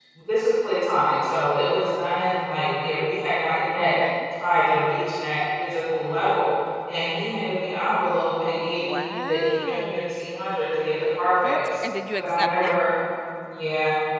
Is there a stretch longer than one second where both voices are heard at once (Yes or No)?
Yes